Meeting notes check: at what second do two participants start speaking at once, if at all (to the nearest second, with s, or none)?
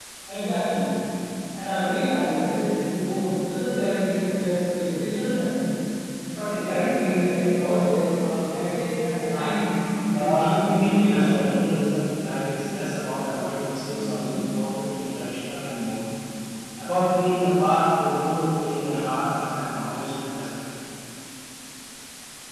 10 s